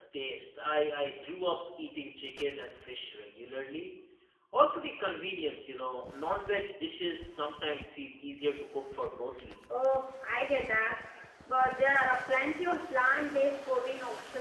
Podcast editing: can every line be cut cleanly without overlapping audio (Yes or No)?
Yes